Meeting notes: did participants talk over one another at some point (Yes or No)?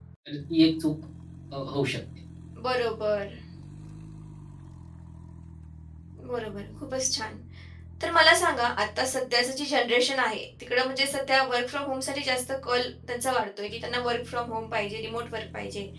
No